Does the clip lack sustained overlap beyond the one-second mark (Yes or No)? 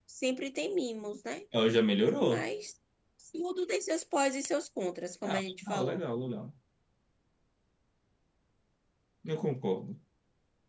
Yes